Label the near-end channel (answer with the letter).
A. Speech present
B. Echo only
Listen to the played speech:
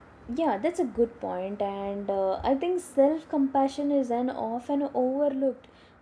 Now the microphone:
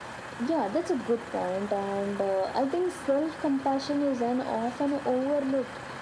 B